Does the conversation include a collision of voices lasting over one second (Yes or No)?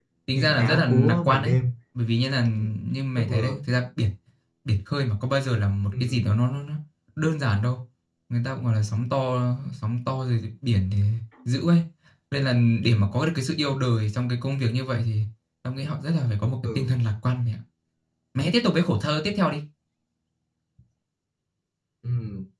Yes